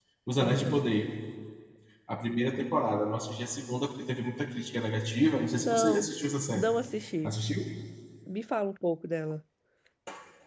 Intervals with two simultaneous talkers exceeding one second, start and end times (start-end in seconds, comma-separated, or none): none